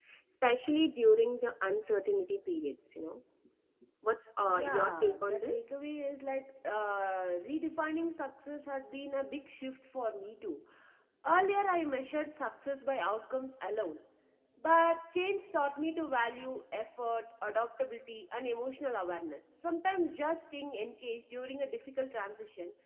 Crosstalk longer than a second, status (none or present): present